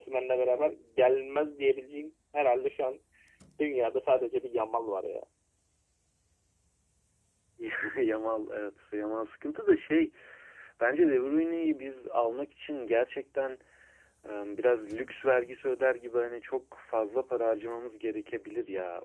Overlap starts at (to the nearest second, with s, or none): none